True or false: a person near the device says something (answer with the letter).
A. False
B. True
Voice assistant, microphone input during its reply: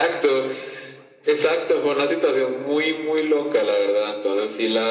A